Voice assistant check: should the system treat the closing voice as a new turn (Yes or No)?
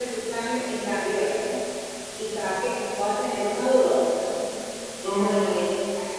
No